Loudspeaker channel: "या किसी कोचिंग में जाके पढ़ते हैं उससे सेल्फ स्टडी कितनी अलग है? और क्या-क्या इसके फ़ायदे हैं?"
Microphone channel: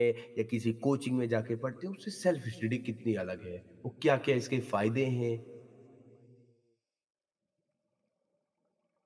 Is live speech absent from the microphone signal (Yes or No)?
Yes